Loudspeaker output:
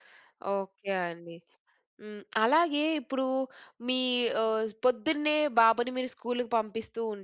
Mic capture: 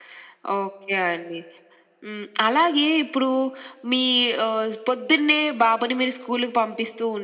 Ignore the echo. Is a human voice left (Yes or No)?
No